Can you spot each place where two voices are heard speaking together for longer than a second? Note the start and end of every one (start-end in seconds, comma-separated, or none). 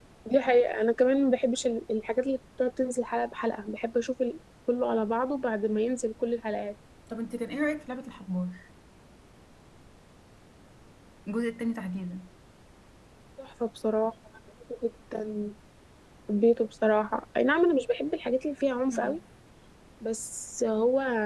none